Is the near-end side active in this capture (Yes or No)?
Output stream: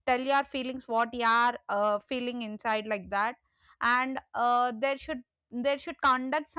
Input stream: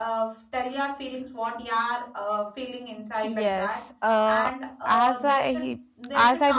Yes